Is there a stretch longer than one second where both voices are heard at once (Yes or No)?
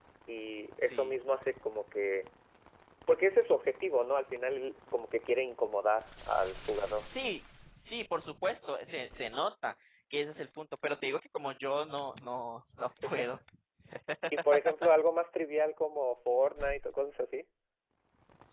No